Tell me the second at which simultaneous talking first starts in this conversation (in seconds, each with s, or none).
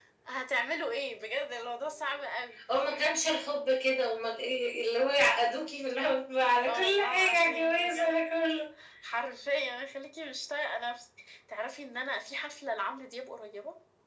6.7 s